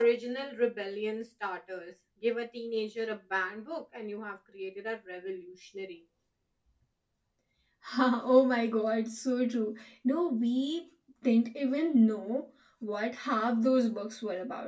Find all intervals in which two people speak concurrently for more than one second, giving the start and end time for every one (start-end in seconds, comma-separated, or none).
none